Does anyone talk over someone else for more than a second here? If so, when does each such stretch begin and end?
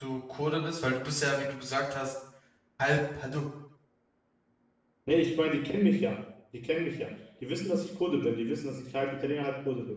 none

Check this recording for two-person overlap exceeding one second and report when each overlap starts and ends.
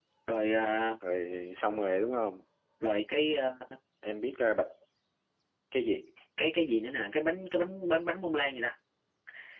none

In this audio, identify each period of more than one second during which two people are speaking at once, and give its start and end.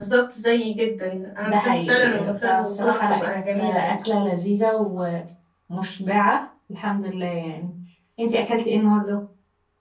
1.4-4.0

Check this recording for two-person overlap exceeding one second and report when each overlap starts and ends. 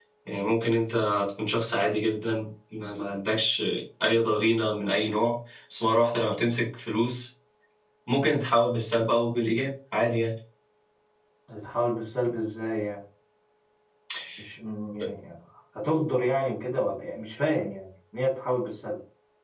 none

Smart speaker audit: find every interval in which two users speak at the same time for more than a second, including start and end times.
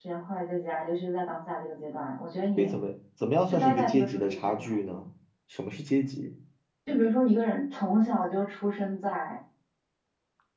3.5-4.8

